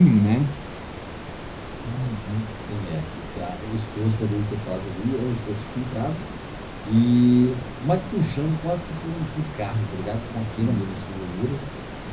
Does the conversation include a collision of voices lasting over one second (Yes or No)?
No